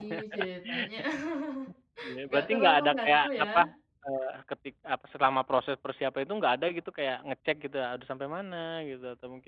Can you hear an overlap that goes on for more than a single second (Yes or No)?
Yes